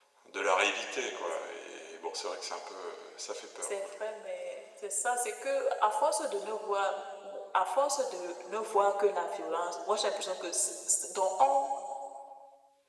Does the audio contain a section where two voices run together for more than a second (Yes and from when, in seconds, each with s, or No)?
No